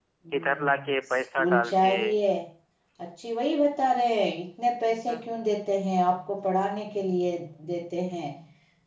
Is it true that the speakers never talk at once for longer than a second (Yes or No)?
No